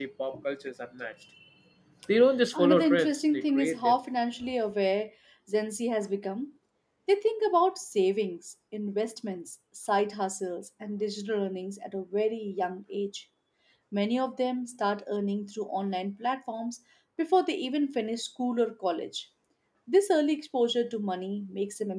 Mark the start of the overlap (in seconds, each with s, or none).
2.5 s